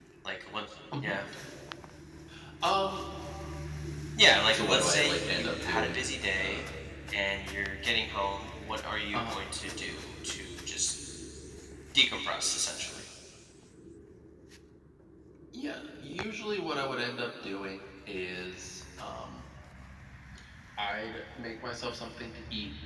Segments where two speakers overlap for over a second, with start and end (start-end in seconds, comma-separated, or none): 4.5-6.6